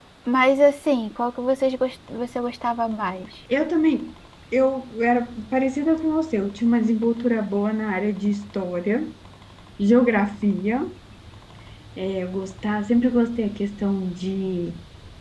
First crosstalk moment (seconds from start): none

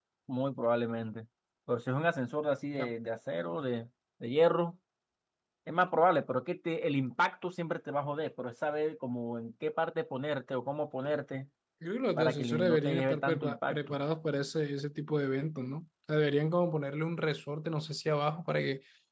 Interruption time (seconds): 12 s

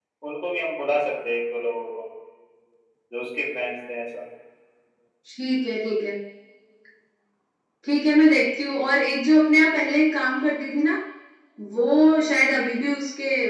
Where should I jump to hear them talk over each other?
none

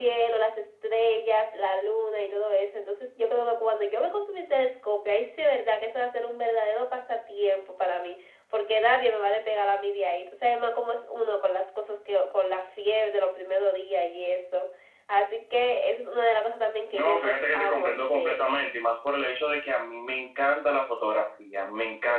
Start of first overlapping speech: 17 s

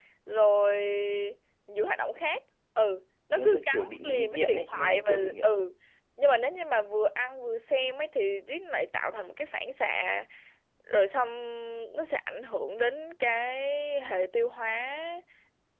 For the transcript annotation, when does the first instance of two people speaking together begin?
3 s

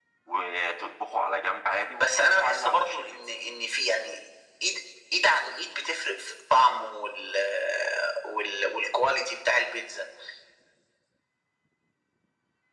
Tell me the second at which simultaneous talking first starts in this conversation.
2 s

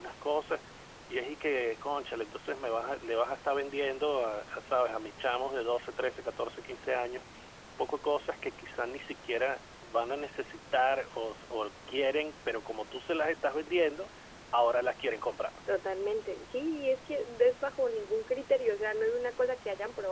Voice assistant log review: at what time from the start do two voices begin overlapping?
none

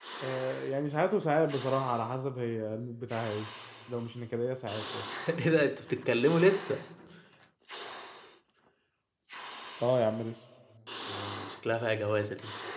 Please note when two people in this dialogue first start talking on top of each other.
none

